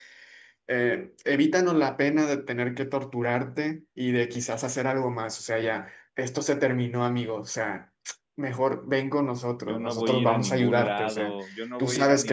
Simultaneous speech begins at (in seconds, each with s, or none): 9.7 s